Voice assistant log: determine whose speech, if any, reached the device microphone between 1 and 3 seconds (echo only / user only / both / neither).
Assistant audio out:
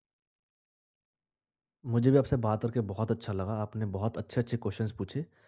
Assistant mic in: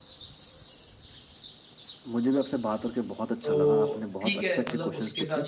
echo only